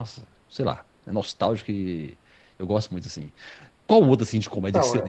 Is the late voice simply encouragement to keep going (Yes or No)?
Yes